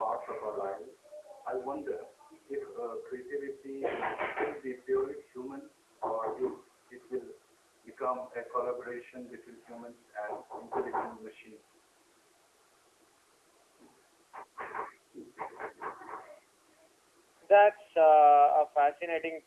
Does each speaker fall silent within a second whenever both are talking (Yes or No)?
Yes